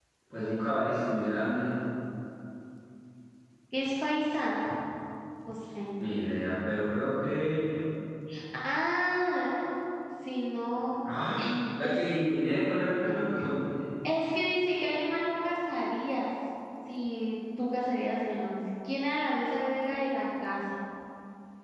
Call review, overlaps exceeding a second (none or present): none